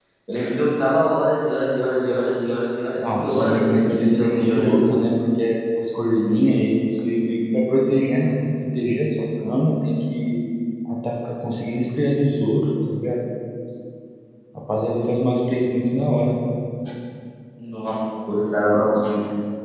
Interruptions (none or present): present